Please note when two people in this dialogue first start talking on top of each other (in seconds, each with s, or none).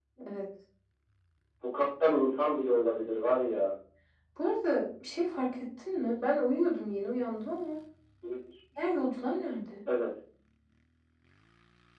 none